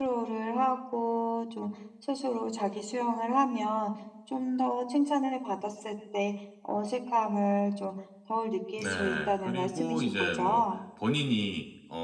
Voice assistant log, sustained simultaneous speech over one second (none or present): present